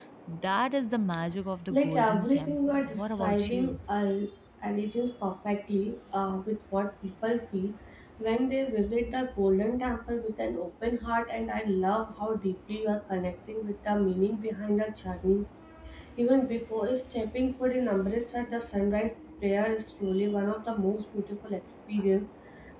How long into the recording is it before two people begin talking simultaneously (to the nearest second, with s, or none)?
2 s